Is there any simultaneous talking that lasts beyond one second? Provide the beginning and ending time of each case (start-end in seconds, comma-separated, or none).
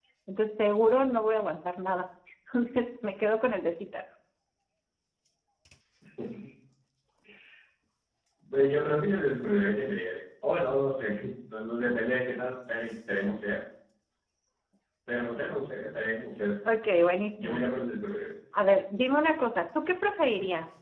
none